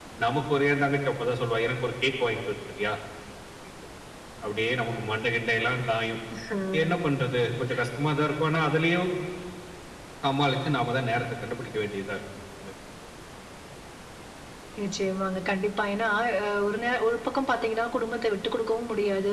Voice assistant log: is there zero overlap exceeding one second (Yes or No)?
Yes